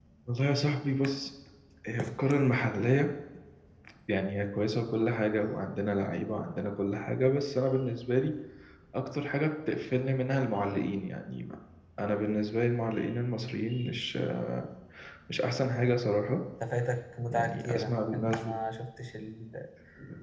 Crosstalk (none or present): present